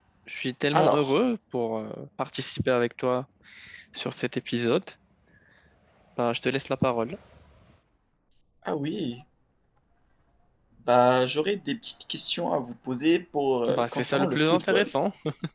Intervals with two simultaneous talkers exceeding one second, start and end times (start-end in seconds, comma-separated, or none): 13.7-14.9